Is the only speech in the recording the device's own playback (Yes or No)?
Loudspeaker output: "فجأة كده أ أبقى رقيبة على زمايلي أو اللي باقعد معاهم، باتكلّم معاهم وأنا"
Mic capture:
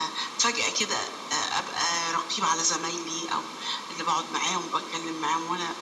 Yes